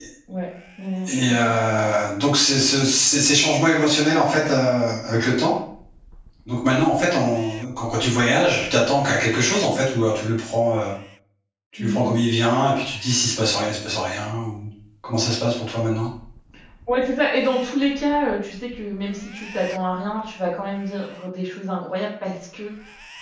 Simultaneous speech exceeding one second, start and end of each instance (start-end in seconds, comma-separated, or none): none